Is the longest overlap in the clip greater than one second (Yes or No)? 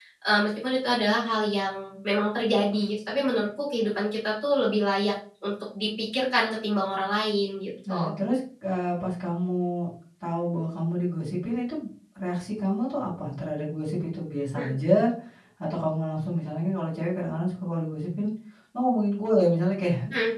No